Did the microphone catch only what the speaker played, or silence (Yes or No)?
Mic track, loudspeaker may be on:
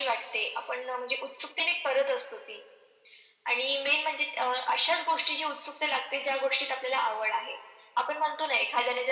Yes